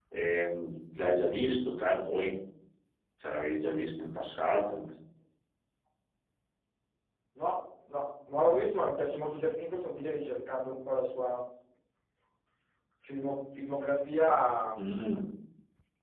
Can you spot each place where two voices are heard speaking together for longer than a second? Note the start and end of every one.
none

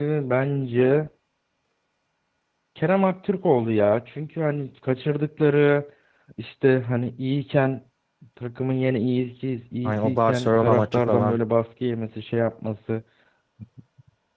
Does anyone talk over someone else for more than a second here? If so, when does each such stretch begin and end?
9.8-11.4

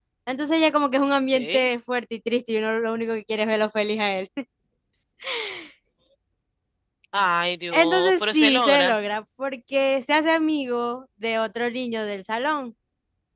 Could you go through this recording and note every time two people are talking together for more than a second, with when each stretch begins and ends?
7.7-9.0

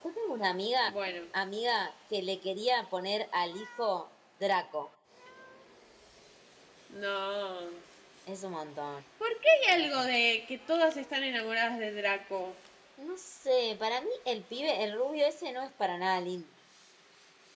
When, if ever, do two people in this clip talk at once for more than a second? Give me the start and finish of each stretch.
none

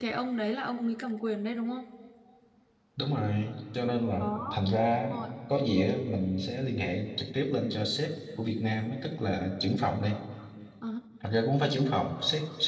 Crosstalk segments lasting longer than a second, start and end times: none

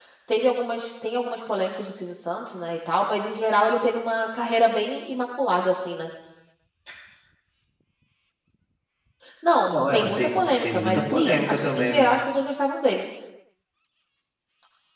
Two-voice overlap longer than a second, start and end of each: 9.7-12.1

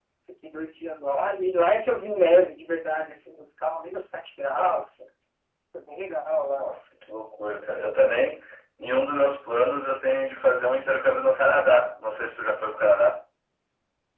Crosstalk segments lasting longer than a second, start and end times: none

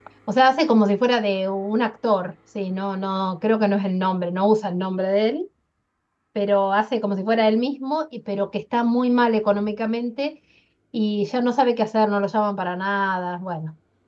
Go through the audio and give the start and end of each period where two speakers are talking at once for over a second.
none

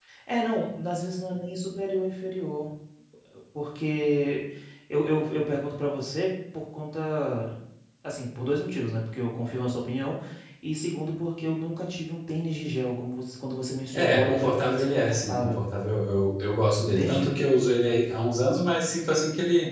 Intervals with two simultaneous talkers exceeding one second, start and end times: 13.9-15.6

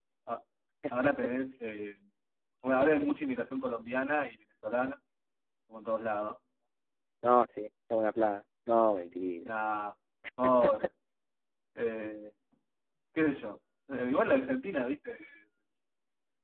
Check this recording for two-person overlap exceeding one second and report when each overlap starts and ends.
none

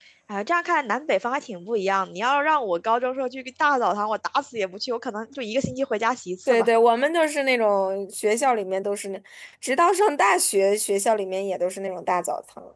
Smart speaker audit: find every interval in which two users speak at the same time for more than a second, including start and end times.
none

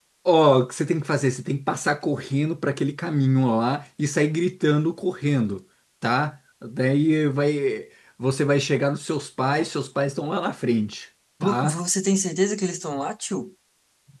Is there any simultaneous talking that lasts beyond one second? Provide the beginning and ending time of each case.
none

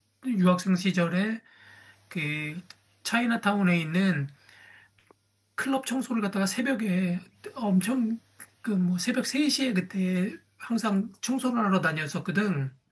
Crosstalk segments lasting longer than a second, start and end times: none

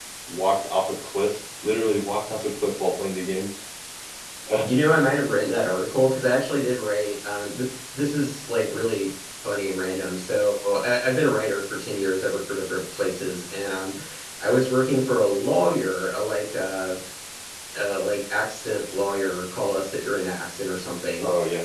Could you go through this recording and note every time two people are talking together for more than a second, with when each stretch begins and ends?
none

